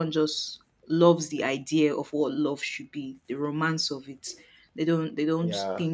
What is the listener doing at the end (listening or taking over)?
listening